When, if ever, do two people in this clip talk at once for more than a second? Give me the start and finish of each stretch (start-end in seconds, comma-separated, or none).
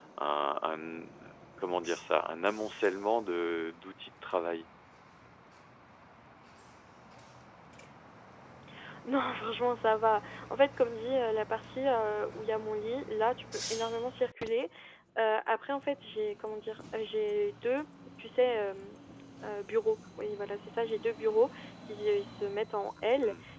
none